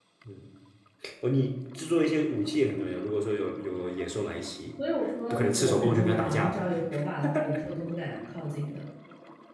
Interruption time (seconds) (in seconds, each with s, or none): 5.3 s